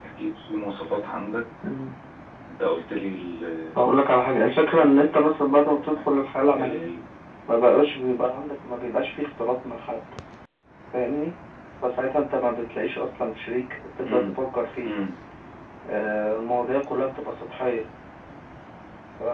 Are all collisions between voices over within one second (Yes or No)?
Yes